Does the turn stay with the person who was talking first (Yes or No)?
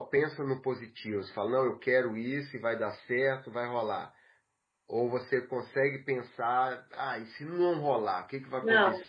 No